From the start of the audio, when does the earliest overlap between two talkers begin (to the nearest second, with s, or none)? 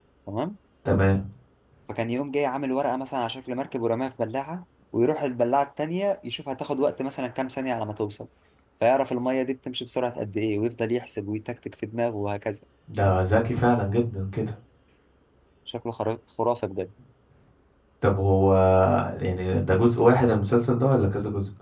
none